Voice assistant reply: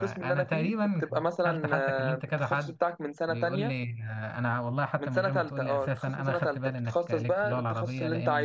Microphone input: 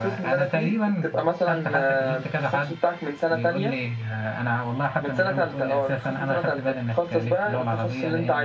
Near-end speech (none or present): none